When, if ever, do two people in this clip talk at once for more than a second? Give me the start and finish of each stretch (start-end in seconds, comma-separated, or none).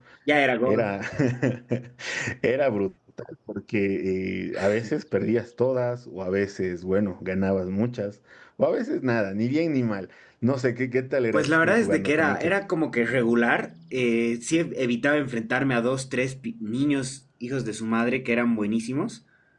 11.3-12.5